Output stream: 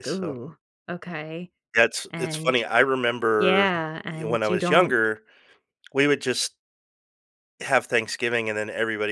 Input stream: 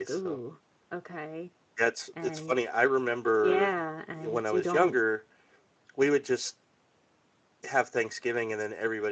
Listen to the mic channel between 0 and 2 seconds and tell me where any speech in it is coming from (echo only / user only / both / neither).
echo only